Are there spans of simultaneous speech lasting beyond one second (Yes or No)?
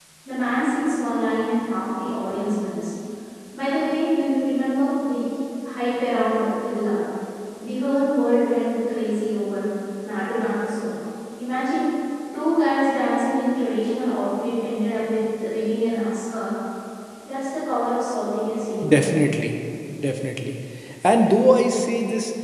No